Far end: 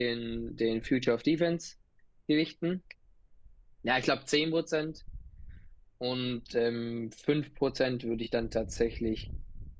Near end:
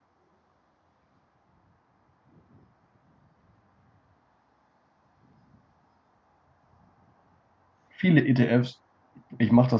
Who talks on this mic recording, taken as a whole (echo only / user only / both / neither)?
user only